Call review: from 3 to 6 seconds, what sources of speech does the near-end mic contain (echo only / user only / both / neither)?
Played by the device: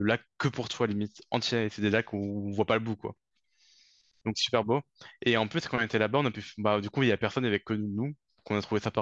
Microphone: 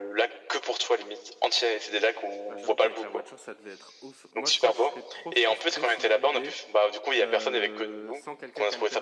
both